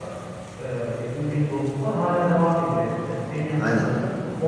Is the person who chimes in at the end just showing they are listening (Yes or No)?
Yes